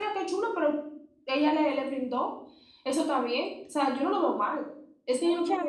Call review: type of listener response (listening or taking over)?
taking over